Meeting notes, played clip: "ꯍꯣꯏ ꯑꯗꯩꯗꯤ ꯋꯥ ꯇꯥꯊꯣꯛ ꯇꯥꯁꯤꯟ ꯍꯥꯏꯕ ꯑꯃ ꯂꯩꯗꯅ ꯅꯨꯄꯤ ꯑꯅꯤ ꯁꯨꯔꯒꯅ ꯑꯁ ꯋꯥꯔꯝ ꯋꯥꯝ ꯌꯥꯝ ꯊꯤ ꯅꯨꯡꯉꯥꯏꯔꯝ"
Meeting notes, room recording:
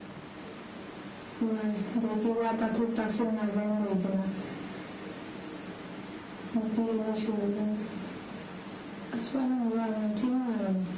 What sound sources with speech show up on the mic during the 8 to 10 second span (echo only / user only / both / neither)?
echo only